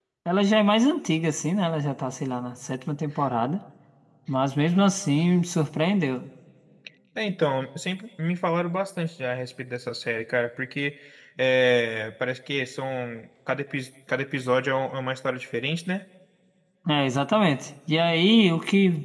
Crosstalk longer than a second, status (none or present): none